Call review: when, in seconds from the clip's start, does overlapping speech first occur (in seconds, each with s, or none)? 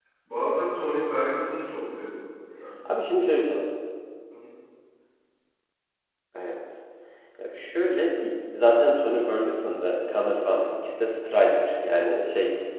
none